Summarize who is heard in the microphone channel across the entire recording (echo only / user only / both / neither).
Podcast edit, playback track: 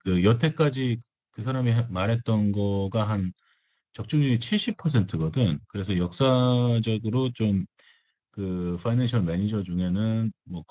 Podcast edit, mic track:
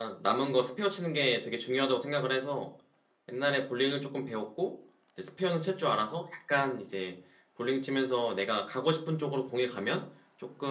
user only